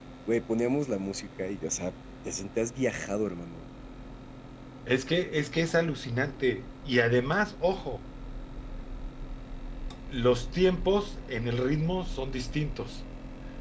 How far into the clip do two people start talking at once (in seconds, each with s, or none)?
none